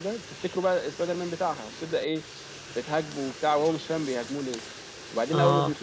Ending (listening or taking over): listening